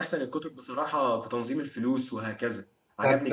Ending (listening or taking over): taking over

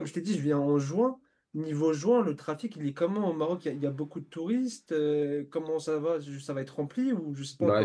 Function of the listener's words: taking over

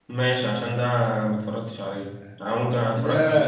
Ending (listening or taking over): listening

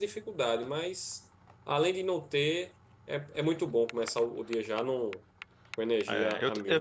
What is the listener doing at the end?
taking over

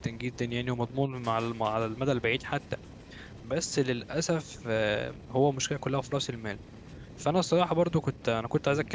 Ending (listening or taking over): listening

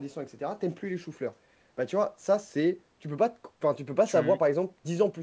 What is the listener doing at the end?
listening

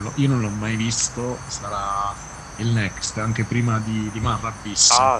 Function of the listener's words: taking over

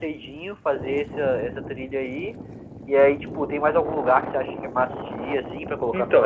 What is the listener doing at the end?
taking over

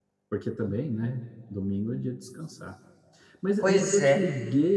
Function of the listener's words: listening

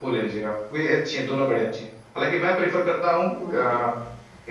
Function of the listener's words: listening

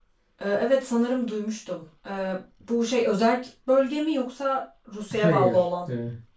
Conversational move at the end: taking over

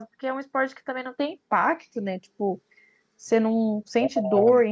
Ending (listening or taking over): listening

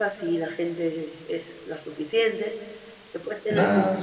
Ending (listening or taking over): listening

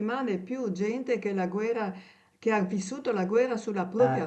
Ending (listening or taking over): listening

